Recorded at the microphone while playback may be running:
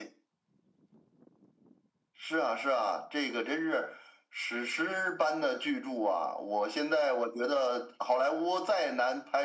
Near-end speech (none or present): none